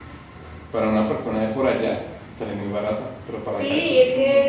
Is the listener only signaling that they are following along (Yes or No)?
No